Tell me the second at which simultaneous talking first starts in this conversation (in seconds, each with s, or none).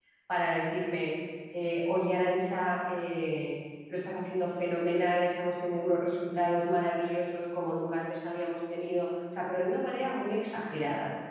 none